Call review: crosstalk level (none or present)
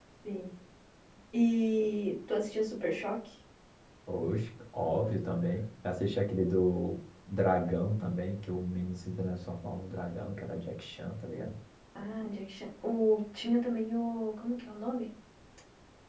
none